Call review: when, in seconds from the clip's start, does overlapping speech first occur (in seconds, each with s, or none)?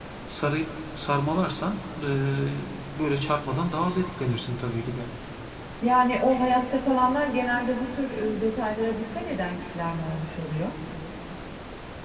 none